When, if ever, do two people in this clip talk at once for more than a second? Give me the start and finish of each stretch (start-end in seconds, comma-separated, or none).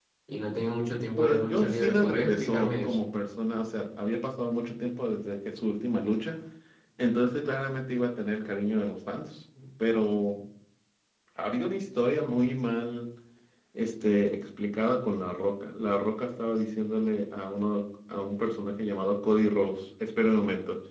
1.2-3.0